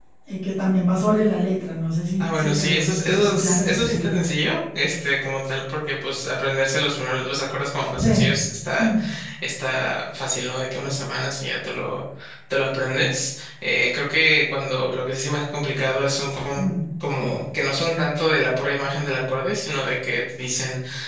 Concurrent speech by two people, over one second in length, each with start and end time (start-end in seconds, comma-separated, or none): 2.2-4.2